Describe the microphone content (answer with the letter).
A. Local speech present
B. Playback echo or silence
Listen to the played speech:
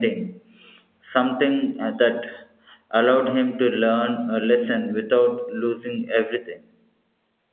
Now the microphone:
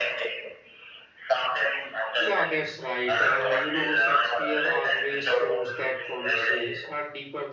A